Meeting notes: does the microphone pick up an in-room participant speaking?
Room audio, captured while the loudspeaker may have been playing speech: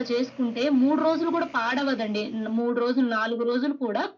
No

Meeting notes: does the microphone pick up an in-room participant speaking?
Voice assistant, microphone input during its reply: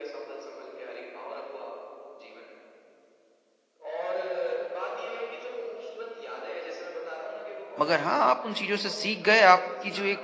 Yes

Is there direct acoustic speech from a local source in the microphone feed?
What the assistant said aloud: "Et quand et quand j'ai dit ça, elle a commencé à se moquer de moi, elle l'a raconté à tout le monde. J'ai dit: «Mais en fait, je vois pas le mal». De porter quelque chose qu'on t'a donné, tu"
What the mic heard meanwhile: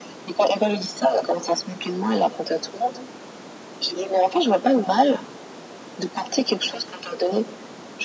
No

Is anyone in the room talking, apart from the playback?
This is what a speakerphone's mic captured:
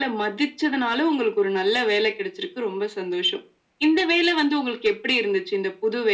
No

